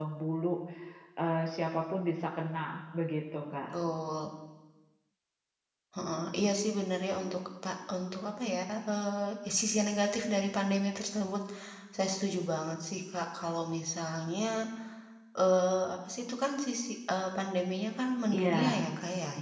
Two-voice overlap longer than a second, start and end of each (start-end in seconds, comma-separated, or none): none